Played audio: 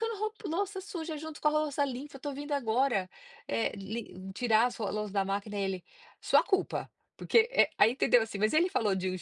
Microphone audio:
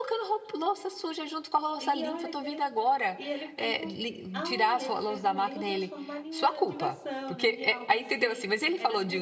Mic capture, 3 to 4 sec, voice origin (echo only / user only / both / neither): both